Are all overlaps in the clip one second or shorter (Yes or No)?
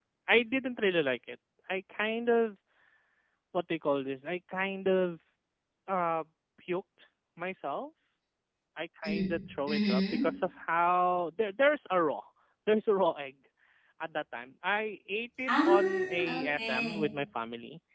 No